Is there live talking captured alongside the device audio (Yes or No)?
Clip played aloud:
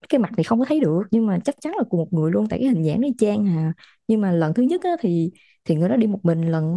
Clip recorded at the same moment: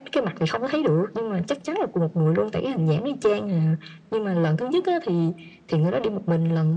No